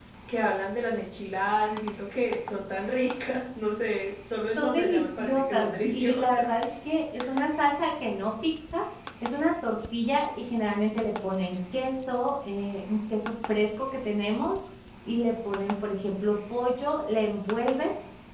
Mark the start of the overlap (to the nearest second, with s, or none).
5 s